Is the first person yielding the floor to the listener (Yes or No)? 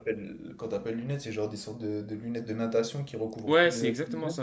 Yes